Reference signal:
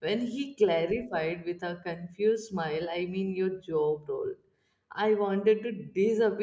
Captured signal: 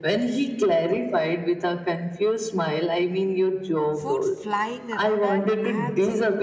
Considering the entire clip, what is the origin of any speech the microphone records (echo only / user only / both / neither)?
both